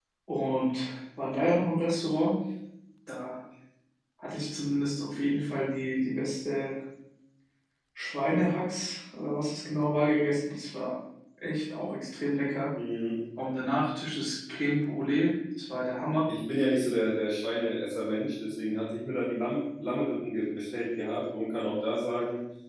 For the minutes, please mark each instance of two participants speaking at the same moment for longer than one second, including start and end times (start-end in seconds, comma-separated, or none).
none